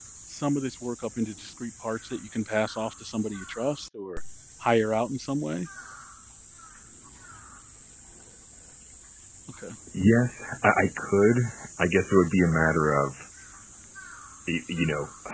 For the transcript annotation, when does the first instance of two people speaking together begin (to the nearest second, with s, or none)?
none